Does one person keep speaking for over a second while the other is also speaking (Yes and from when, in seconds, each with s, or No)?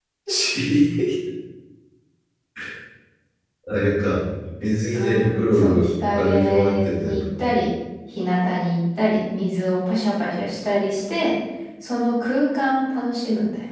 Yes, from 4.9 s